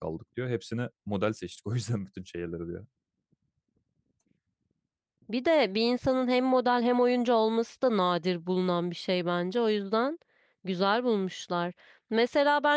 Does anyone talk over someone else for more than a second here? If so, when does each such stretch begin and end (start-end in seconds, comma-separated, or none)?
none